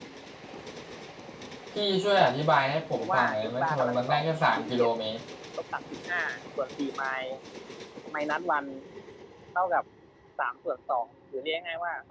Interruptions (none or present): present